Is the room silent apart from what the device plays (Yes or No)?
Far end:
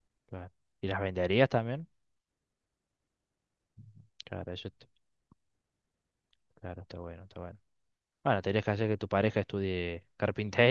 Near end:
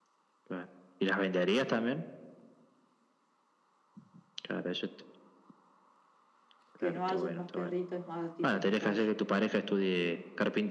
No